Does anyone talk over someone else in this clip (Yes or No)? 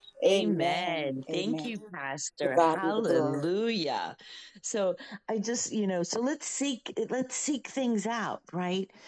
Yes